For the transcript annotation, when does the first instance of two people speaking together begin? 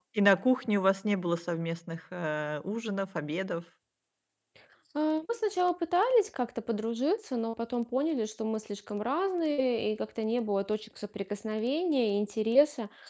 none

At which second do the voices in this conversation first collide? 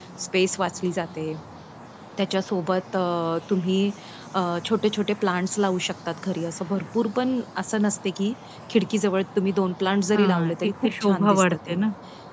10.1 s

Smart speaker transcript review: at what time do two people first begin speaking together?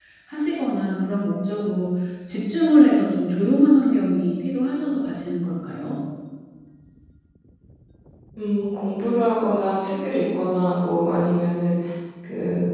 none

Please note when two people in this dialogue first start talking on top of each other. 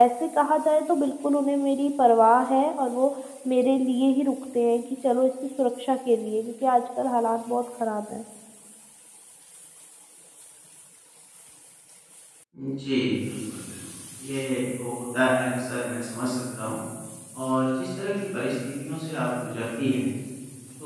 none

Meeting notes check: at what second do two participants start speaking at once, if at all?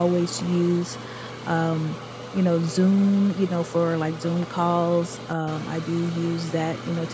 none

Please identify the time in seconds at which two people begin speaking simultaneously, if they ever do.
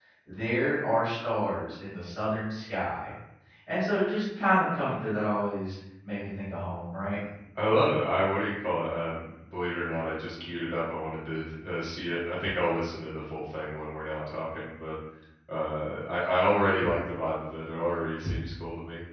none

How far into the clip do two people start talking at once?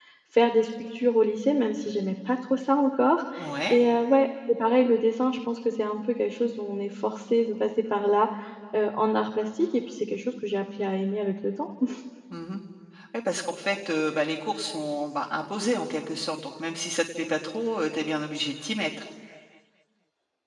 none

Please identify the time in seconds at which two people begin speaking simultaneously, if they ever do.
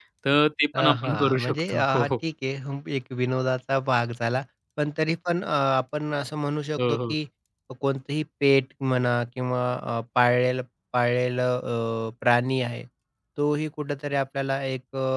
0.8 s

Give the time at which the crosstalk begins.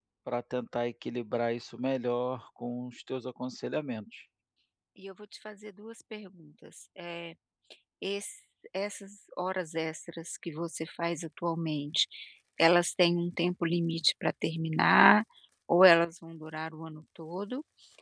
none

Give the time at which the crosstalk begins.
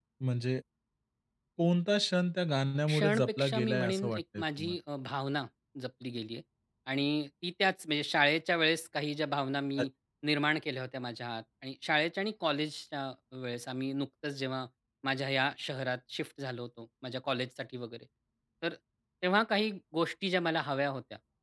2.9 s

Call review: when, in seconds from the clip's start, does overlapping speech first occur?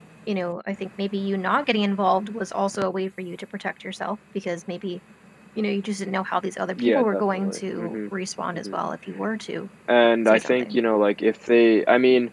6.8 s

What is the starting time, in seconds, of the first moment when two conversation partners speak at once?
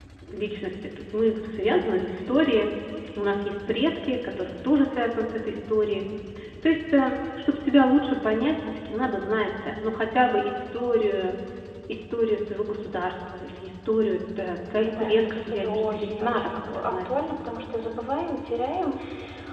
14.8 s

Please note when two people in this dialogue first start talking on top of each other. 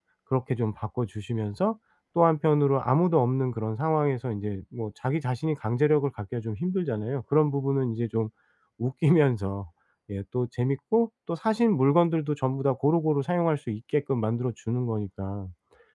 none

